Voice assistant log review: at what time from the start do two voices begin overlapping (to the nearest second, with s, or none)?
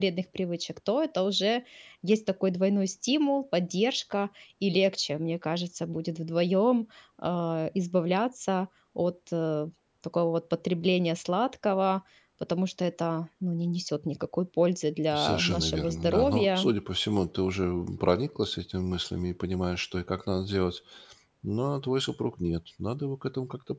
15 s